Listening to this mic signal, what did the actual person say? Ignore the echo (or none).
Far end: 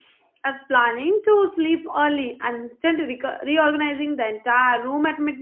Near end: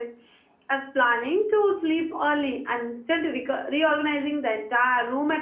none